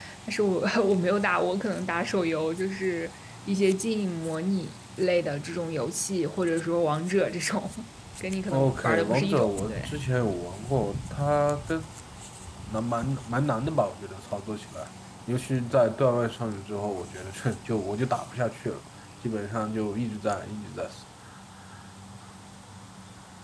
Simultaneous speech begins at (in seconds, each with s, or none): 8.5 s